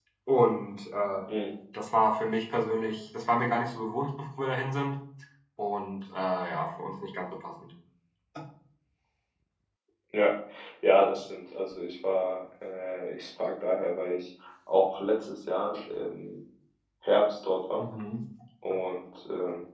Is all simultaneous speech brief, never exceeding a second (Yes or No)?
Yes